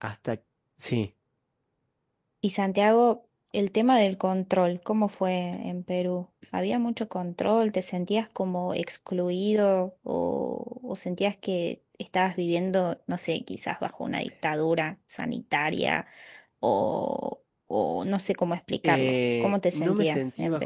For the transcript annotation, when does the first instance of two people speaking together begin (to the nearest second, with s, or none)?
19 s